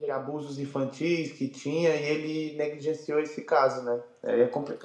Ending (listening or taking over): taking over